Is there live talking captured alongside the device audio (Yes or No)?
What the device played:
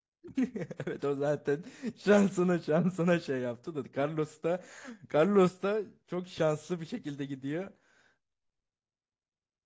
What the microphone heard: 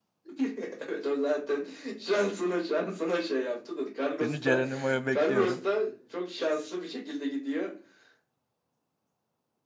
Yes